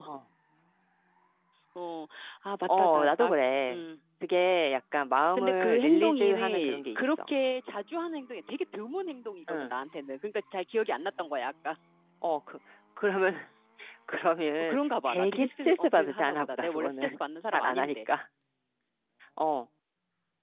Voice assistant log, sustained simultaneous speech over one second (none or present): present